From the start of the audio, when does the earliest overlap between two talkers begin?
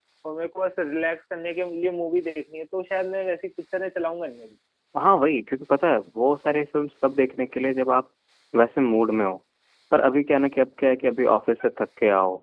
none

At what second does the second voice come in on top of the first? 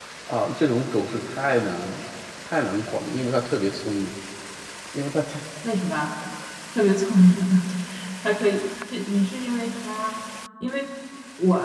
none

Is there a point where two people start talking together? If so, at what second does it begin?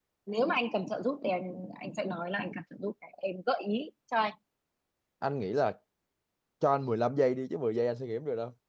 none

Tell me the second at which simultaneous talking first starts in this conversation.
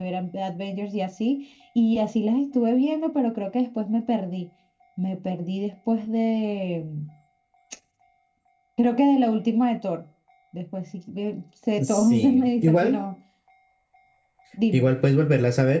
12 s

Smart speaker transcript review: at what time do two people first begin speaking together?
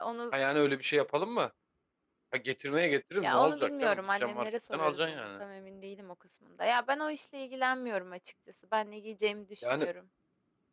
3 s

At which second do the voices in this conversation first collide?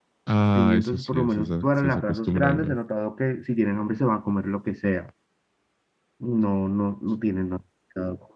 1 s

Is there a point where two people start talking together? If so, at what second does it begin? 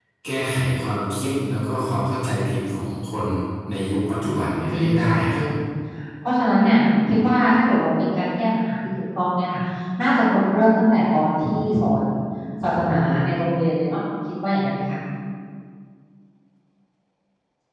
4 s

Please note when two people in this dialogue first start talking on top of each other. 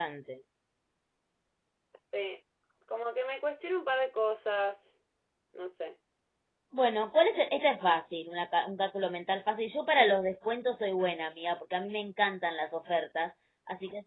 none

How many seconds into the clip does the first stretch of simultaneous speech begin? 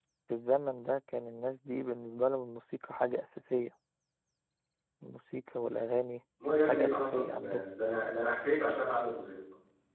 6 s

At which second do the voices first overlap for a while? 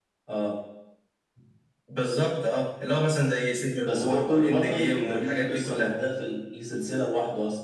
4 s

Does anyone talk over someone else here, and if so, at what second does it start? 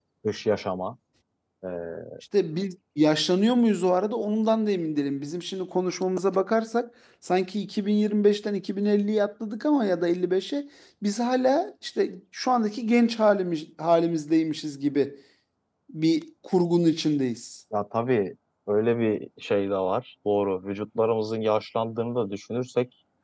none

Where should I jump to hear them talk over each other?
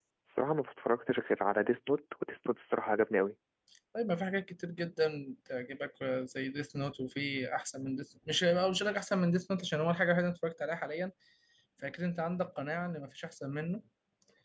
none

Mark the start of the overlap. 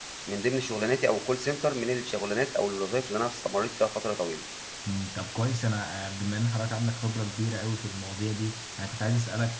none

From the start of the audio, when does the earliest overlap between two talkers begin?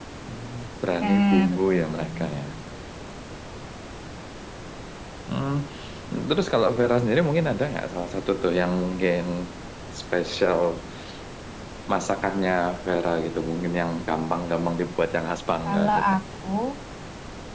1 s

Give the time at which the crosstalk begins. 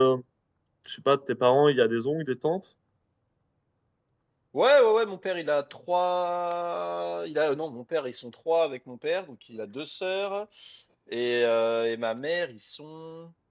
none

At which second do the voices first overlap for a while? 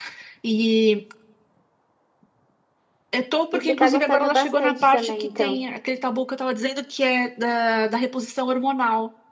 4 s

